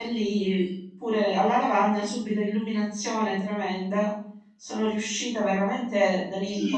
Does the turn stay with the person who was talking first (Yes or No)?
No